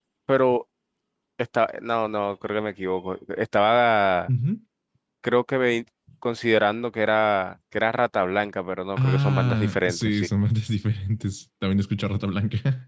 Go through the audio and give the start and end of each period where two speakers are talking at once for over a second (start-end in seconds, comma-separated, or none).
9.0-10.3